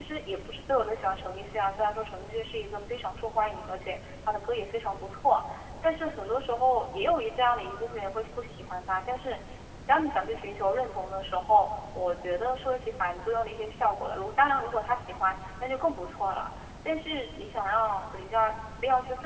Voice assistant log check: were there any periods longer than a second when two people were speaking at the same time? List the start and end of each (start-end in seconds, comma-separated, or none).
none